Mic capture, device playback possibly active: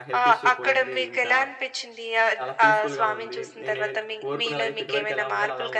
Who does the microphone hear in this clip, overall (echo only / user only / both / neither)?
both